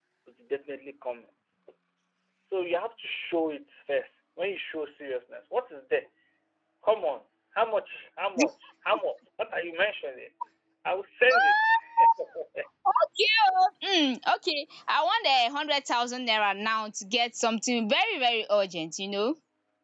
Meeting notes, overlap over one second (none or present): none